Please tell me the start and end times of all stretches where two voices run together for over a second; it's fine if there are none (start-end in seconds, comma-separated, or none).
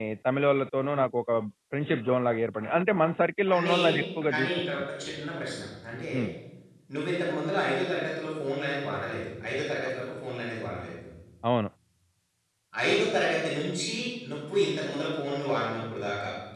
none